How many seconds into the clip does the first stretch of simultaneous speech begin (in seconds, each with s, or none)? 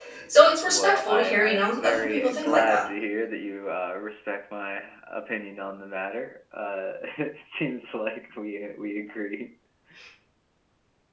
0.6 s